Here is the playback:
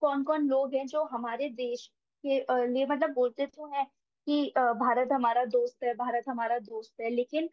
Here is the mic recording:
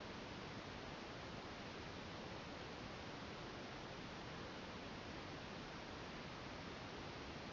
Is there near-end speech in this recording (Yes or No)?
No